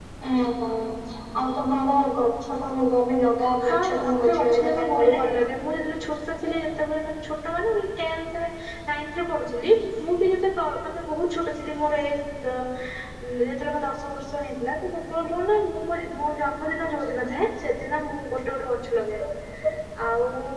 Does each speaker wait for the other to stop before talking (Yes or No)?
No